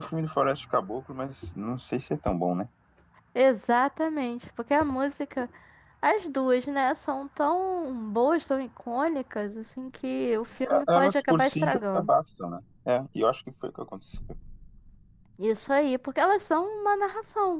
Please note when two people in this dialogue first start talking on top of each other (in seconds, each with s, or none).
10.6 s